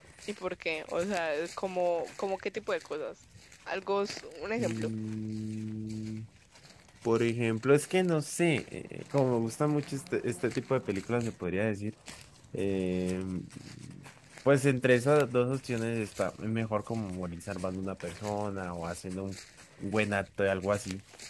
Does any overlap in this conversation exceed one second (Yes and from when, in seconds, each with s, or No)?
No